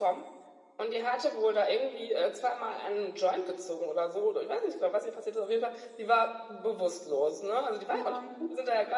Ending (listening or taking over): listening